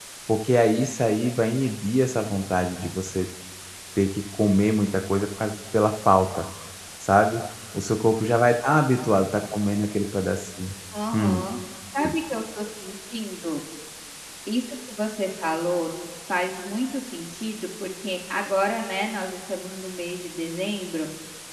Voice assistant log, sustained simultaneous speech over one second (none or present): none